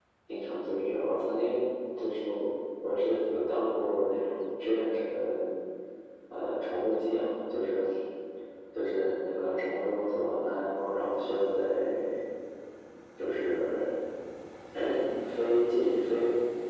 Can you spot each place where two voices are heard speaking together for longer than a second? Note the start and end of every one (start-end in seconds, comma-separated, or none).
none